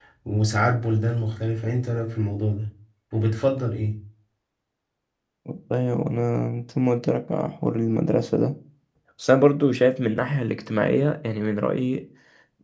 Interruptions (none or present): none